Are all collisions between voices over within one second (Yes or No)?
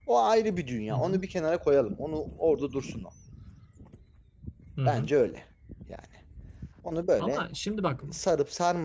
Yes